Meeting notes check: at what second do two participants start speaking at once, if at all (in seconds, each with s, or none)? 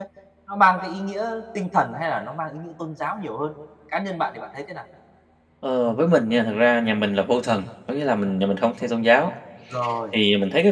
none